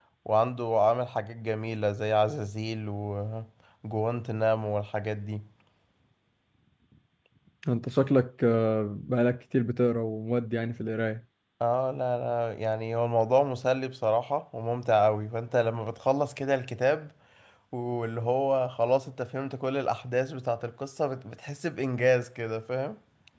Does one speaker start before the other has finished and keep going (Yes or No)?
No